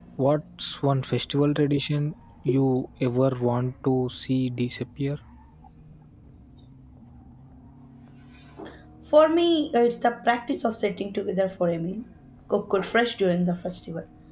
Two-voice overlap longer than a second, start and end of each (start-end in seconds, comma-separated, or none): none